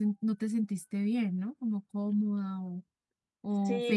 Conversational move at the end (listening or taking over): taking over